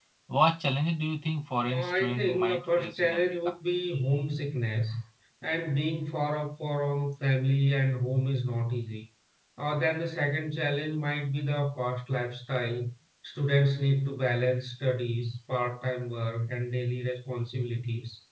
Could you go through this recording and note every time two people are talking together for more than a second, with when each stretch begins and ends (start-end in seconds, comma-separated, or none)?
1.6-3.5